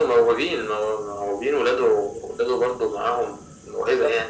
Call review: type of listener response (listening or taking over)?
taking over